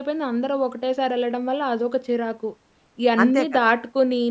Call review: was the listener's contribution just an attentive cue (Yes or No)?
Yes